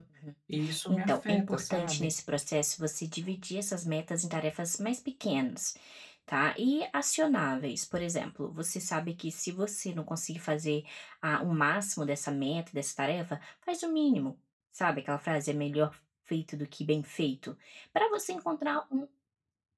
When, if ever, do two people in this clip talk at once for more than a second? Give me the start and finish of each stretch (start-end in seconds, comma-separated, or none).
0.9-2.1